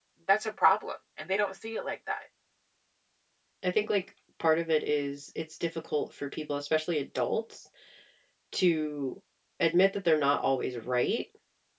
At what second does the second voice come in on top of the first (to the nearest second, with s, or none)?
none